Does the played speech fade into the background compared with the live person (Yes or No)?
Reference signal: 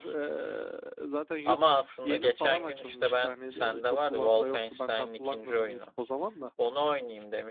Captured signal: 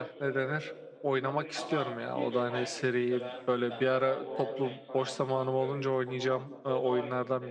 Yes